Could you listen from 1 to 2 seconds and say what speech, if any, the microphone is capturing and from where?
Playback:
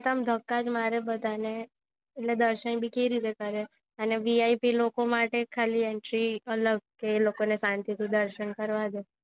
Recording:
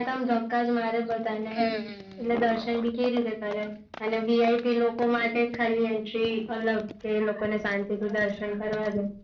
both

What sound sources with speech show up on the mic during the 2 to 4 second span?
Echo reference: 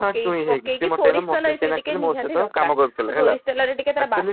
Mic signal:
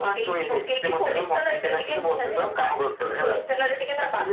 echo only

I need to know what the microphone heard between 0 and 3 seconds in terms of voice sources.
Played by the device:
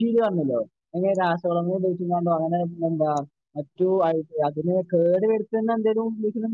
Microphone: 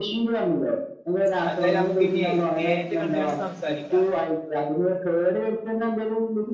both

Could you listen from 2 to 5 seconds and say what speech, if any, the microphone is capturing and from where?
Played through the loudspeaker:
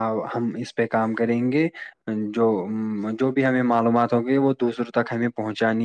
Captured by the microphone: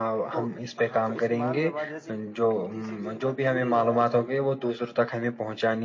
both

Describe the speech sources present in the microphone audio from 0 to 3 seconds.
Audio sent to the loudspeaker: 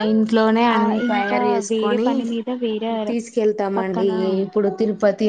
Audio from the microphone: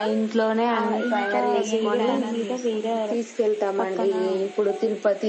both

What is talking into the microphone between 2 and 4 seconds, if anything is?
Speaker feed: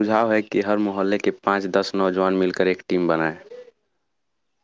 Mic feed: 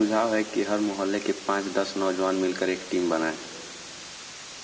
echo only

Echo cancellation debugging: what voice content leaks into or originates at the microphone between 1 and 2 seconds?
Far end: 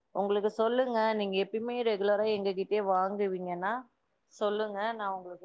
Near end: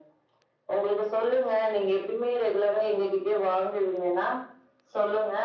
echo only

